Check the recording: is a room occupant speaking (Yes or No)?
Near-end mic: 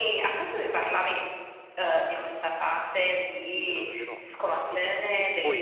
Yes